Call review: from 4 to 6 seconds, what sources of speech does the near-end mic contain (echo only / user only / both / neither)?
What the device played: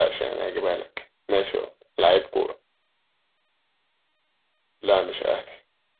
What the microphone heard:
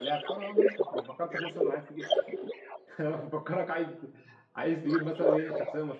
both